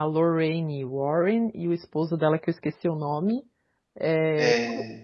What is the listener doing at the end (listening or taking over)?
listening